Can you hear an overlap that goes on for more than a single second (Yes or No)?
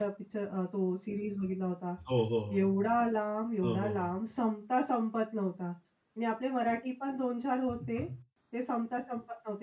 No